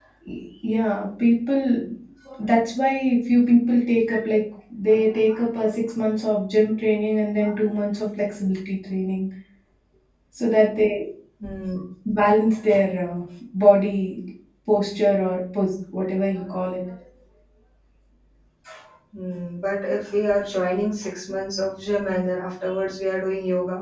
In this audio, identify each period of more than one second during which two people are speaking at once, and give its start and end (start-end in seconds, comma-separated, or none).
none